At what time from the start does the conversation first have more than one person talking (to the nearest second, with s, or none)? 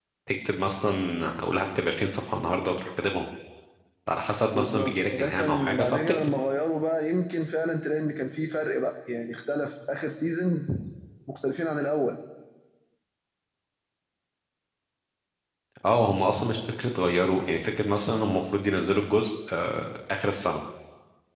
5 s